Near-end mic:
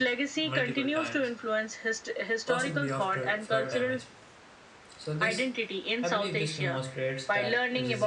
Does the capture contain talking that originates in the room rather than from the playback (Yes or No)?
Yes